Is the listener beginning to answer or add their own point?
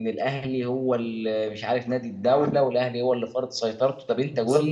No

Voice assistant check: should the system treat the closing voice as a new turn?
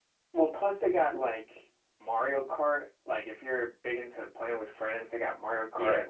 Yes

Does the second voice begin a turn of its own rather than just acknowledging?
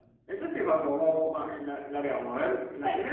No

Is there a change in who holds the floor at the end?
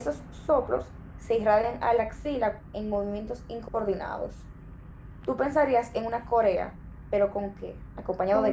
Yes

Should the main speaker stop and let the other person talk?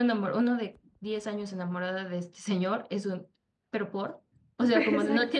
No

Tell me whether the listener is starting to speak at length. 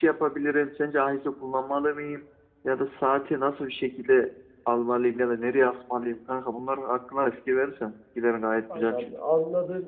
Yes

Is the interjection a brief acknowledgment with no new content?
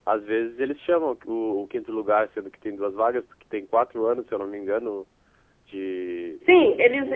No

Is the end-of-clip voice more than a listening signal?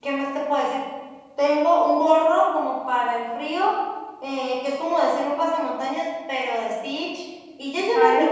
No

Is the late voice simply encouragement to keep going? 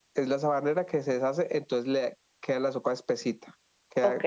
Yes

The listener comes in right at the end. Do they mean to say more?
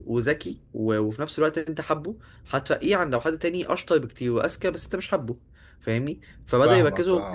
No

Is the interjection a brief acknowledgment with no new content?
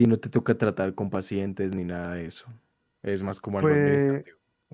No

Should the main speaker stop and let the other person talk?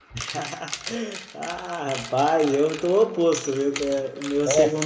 No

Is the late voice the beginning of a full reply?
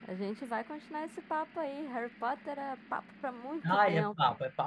Yes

